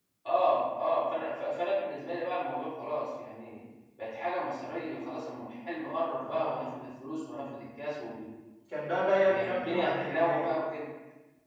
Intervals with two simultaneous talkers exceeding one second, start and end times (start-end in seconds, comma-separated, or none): 9.2-10.5